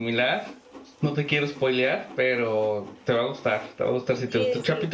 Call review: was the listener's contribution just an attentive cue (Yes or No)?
No